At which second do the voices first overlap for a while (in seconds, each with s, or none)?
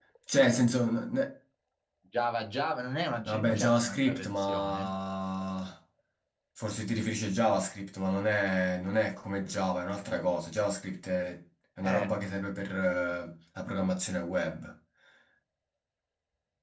3.2 s